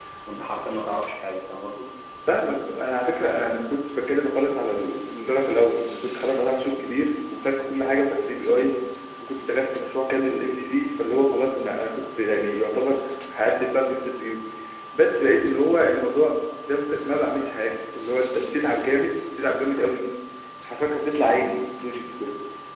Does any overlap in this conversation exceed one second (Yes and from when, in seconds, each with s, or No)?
No